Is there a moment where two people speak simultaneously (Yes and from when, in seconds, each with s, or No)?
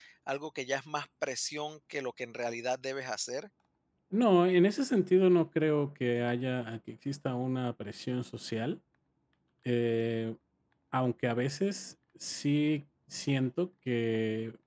No